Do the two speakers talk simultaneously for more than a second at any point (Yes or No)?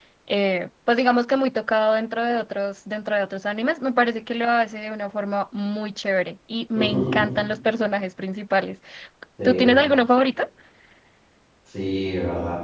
No